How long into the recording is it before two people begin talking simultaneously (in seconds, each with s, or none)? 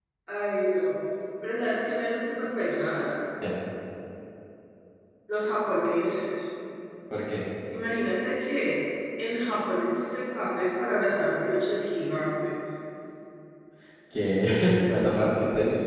none